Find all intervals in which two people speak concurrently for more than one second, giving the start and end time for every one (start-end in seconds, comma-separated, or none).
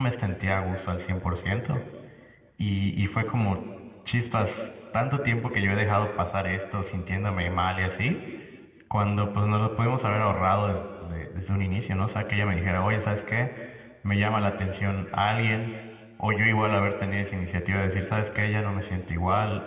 none